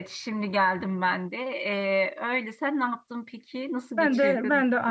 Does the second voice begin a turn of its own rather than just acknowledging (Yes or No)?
Yes